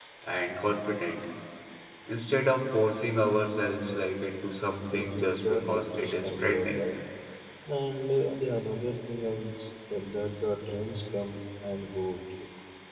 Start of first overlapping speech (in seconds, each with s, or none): 4.9 s